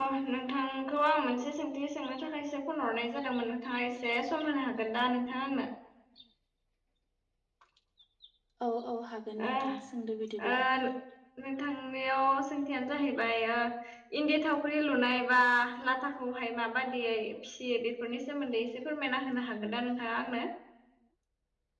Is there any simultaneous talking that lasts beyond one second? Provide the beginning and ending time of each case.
none

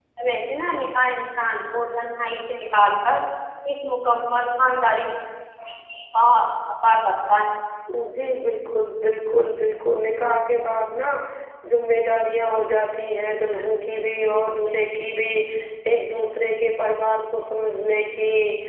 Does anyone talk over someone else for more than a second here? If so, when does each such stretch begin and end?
none

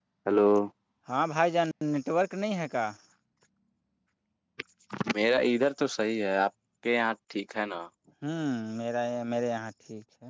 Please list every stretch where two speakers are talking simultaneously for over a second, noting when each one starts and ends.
none

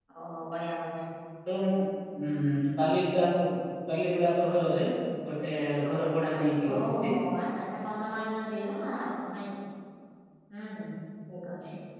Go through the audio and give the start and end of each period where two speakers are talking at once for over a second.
none

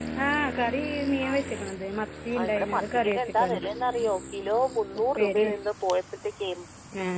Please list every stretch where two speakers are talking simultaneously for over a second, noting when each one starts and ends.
2.4-3.6

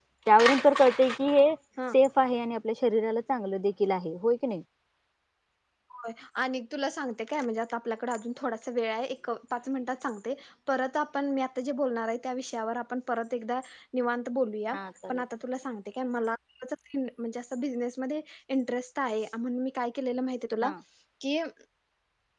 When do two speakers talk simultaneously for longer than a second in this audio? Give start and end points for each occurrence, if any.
none

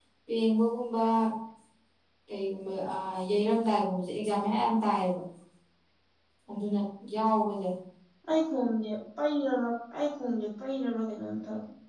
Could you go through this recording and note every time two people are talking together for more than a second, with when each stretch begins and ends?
none

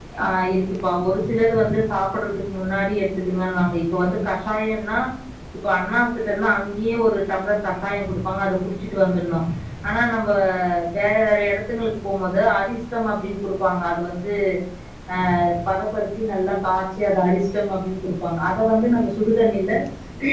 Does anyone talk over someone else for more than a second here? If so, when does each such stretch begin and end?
none

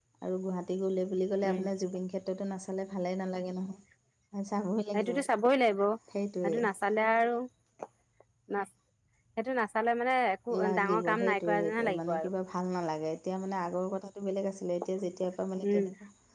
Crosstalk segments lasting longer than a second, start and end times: 10.6-12.3

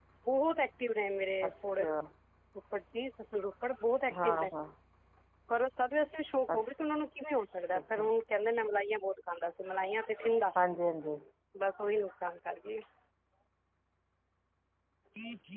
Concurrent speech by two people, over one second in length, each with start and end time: none

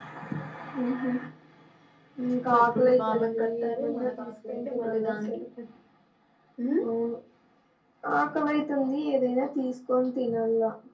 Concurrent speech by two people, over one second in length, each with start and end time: 2.5-5.4

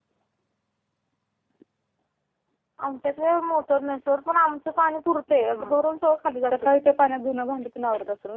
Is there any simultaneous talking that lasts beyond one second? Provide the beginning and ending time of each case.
none

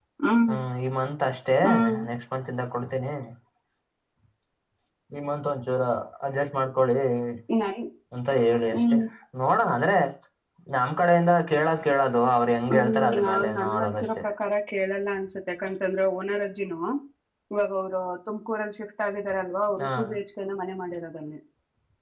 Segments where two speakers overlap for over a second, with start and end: 12.7-14.0

